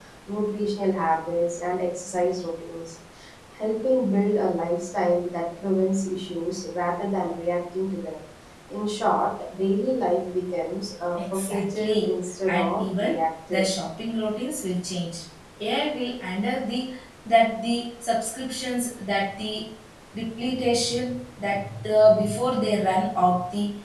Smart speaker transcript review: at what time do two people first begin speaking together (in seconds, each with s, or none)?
11.2 s